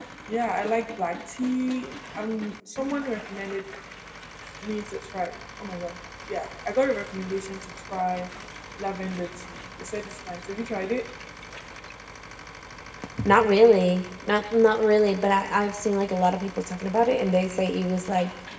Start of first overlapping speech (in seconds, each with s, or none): none